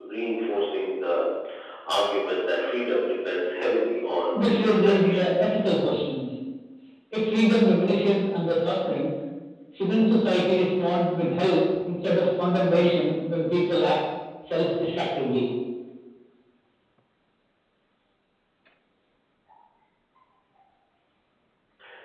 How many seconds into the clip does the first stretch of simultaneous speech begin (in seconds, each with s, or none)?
4.3 s